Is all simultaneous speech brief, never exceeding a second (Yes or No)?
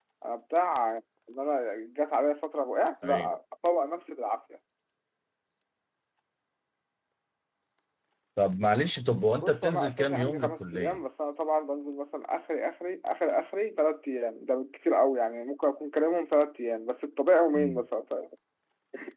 No